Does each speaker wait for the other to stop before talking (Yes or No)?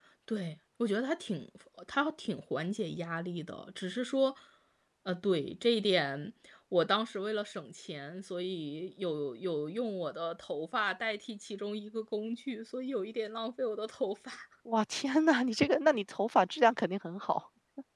Yes